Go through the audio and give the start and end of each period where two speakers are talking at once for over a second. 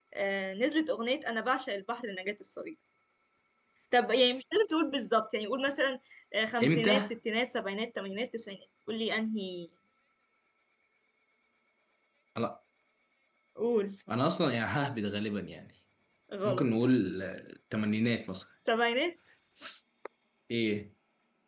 none

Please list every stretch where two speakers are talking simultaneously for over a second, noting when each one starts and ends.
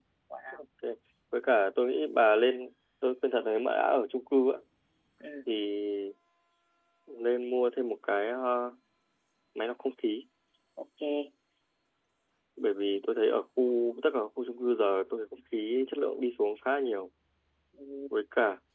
none

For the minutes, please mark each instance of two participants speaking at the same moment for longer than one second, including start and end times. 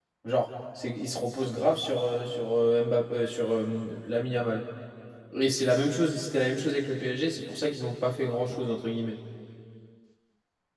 none

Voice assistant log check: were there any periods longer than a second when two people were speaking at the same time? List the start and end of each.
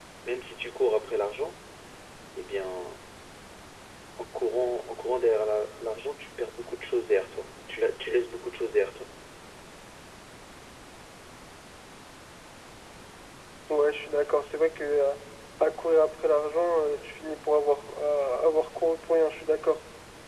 none

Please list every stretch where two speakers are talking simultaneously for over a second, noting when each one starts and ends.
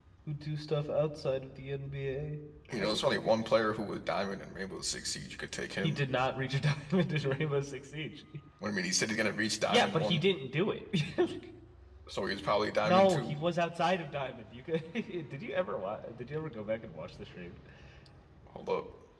none

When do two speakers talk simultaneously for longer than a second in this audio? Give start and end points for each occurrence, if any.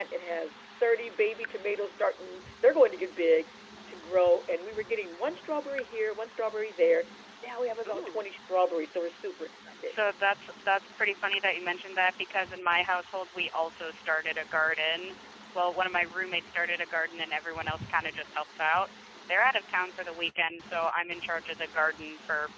none

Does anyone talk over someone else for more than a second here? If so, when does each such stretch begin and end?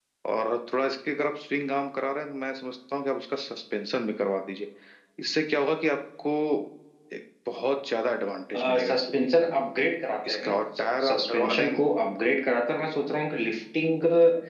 10.3-11.8

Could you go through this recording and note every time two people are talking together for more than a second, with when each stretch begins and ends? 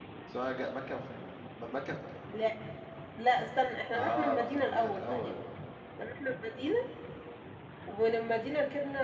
3.9-5.4

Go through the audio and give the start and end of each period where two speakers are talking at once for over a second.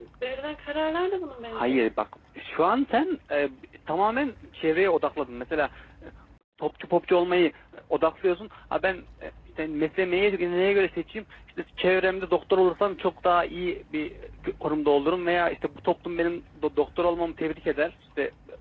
none

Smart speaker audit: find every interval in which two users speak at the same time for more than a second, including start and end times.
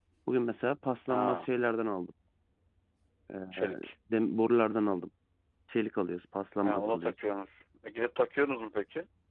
none

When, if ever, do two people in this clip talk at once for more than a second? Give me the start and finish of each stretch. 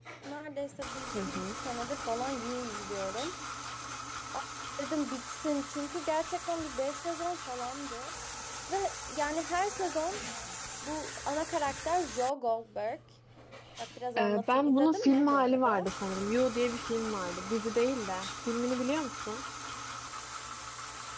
14.2-15.9

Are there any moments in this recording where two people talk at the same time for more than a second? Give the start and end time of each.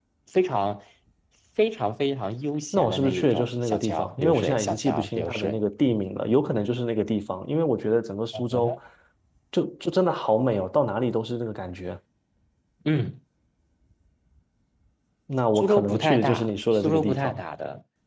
2.7-5.6, 15.5-17.4

